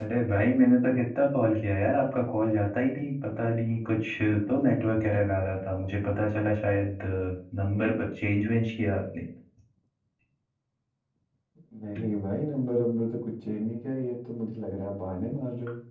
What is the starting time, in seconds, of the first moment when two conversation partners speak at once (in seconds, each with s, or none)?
none